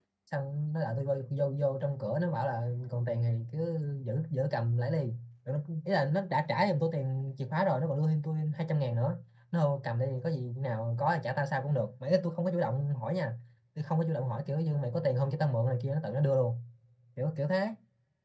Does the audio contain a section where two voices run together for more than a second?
No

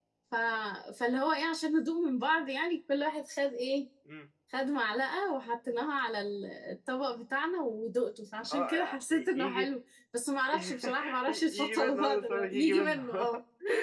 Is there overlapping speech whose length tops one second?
Yes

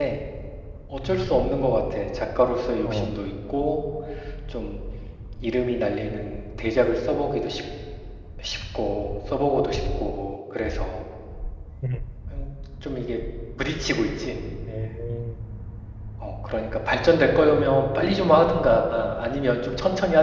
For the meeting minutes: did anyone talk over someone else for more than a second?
No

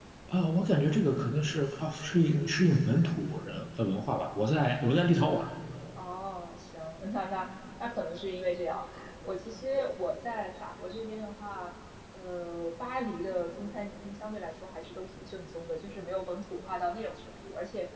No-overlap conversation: Yes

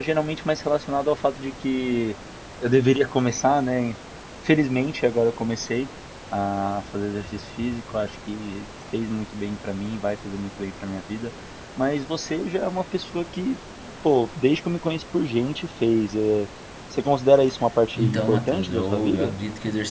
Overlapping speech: Yes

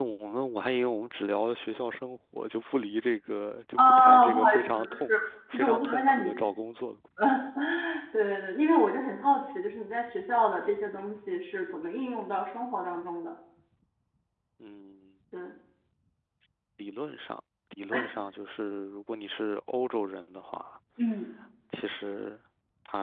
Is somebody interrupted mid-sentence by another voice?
Yes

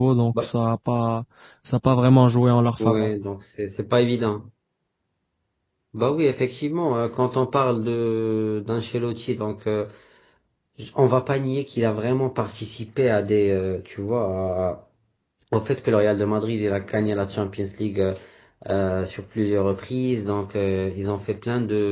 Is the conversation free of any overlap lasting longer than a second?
Yes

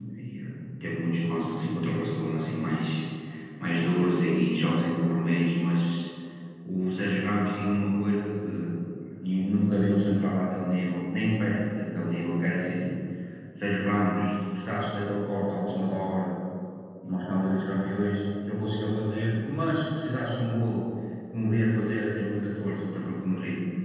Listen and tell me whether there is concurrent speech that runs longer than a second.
No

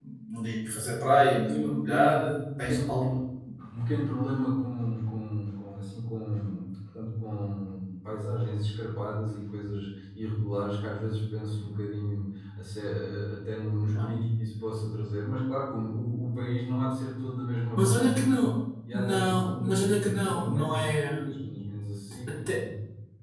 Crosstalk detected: Yes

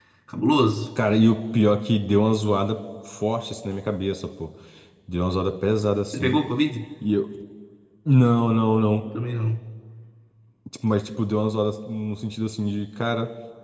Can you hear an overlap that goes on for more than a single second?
No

